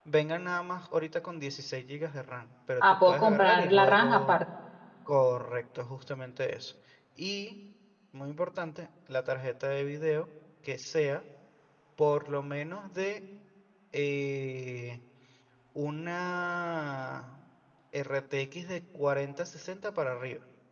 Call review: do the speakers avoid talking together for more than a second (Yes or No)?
No